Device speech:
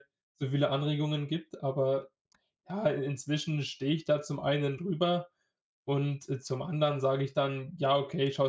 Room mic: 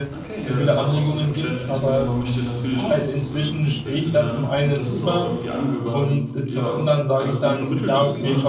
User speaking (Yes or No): Yes